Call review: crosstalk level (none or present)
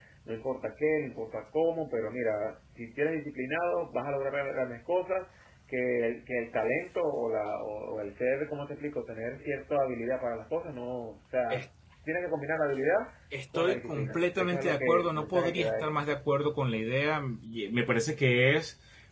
present